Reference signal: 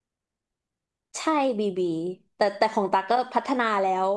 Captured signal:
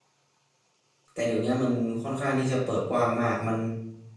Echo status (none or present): none